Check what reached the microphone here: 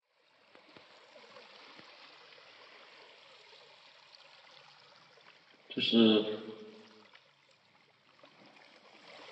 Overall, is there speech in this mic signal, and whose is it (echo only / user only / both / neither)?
user only